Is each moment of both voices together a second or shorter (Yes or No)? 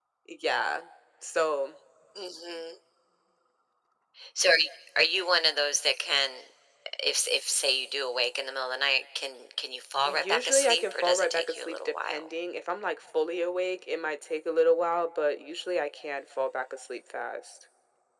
No